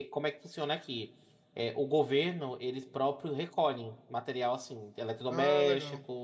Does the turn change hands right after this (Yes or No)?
No